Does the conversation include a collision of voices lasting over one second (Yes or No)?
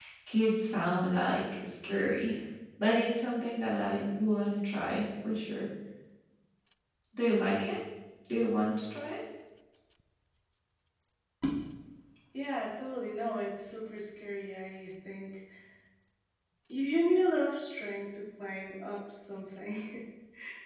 No